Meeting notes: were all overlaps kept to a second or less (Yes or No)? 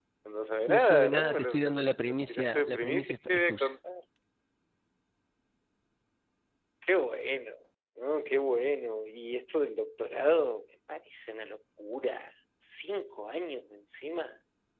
No